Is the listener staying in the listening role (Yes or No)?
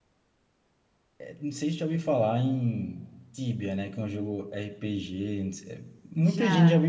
Yes